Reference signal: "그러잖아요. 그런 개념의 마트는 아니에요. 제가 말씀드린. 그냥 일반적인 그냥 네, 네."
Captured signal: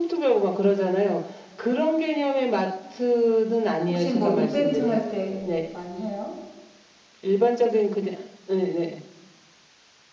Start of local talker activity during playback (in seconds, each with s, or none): 3.9 s